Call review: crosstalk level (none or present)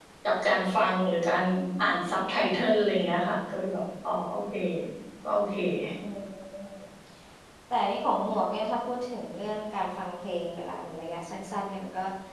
none